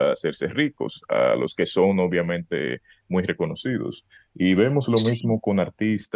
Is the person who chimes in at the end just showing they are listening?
Yes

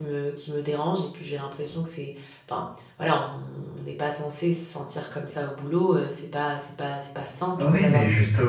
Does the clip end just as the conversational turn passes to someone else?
Yes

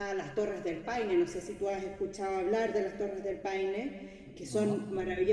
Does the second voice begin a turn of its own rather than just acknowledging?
No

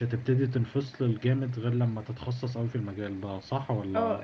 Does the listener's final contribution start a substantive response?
Yes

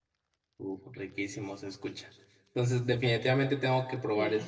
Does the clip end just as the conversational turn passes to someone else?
No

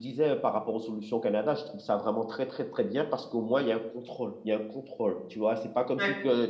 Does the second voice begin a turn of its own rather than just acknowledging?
No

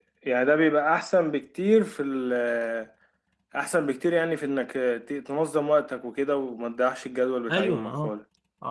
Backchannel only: No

